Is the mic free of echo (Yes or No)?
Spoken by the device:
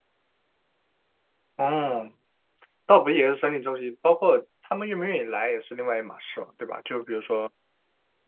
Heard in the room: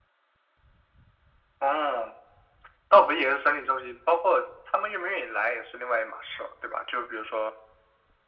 No